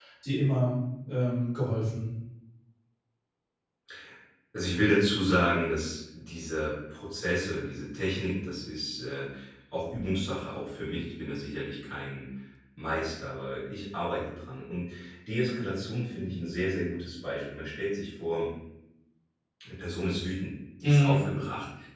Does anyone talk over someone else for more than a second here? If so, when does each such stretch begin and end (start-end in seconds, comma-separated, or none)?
none